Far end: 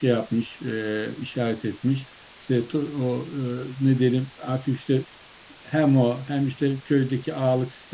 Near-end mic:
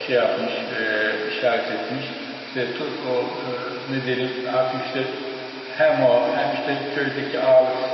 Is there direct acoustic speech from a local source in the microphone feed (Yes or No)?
No